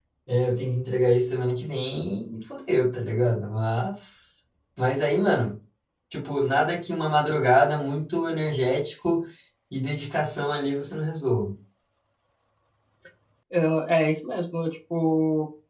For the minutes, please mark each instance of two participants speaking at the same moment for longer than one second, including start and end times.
none

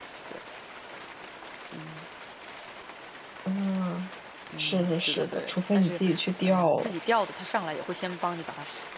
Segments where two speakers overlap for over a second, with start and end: 4.6-6.0

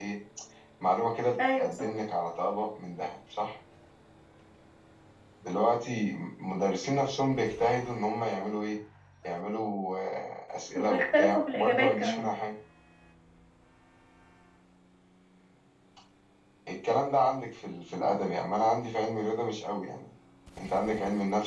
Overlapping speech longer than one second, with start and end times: 10.8-12.3

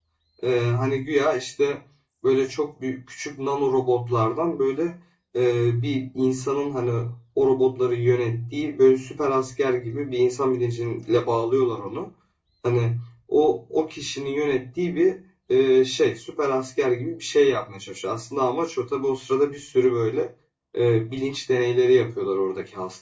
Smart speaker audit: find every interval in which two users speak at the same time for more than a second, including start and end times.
none

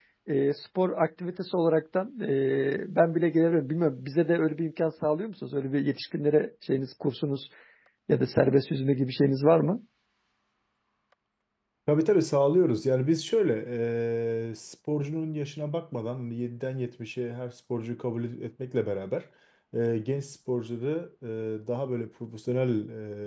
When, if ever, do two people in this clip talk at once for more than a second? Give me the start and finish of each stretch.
none

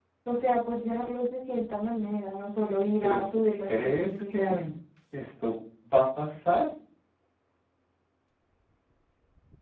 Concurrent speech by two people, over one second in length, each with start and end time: 3.0-4.6

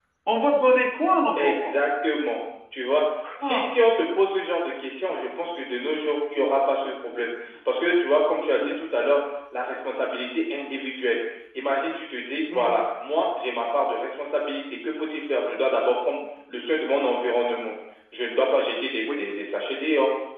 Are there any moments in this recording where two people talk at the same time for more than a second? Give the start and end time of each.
none

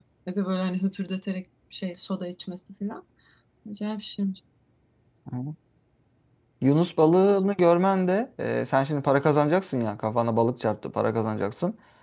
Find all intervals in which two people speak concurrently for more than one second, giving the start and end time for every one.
none

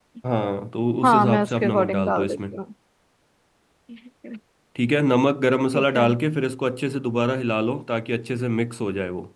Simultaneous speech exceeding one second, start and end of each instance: 1.0-2.4

